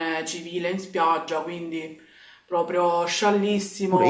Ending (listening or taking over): taking over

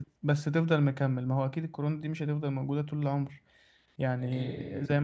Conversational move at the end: listening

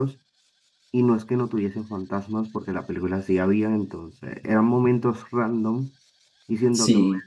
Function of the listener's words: listening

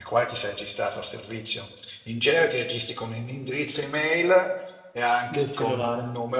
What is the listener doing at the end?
listening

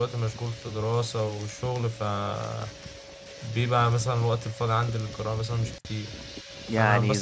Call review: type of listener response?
listening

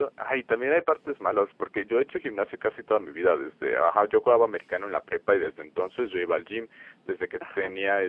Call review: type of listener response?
listening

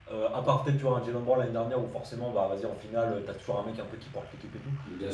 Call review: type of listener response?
listening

